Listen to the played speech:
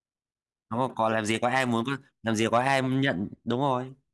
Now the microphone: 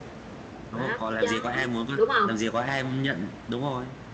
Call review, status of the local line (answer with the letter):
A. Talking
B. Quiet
A